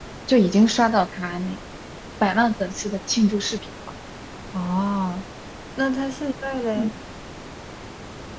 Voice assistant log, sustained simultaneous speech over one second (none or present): none